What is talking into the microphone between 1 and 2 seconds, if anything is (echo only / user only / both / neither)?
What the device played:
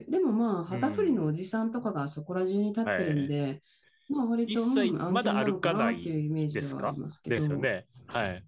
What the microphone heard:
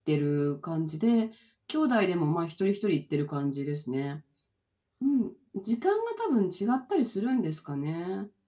user only